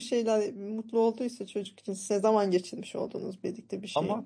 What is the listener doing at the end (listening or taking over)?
taking over